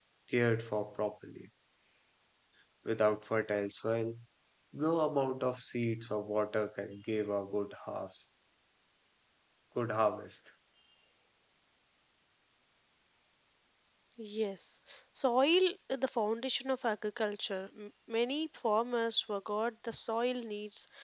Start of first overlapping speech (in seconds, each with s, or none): none